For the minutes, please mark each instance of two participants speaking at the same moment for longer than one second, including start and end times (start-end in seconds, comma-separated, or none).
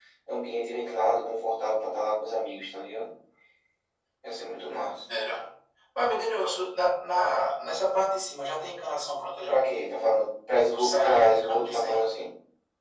10.7-12.1